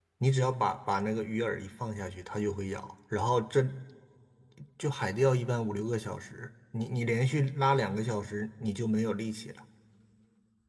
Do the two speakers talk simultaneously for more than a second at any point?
No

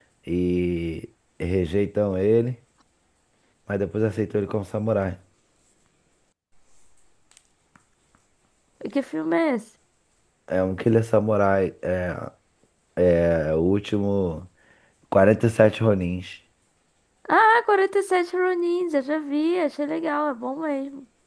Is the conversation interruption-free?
Yes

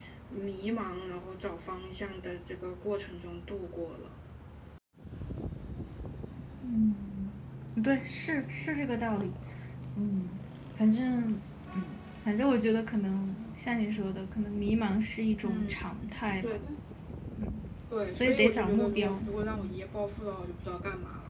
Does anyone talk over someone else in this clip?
Yes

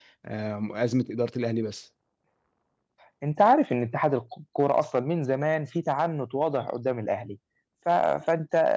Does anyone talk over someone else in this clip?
No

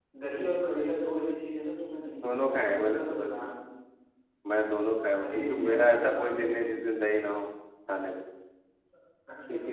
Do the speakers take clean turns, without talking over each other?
No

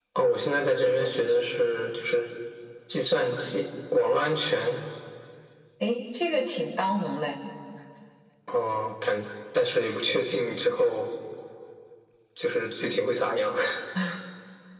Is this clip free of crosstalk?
Yes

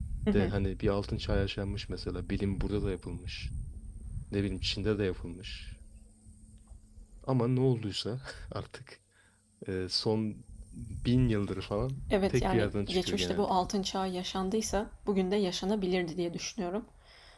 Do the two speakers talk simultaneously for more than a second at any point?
Yes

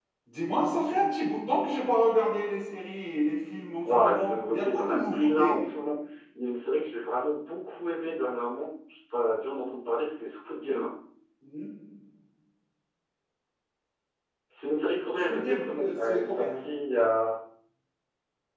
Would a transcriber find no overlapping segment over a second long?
No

